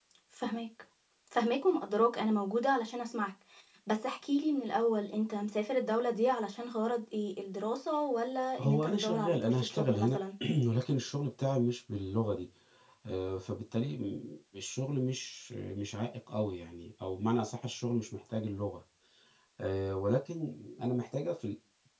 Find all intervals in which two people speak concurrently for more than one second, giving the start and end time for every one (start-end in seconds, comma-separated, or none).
8.6-10.2